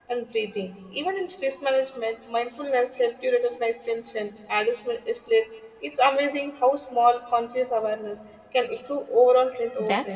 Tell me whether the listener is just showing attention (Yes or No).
No